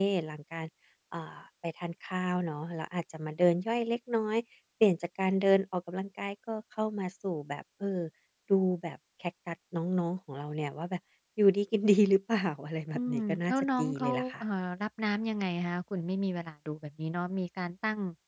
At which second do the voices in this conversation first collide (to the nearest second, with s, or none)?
13 s